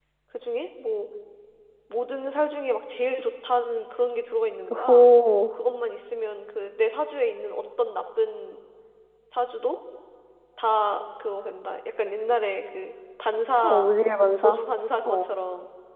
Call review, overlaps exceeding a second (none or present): none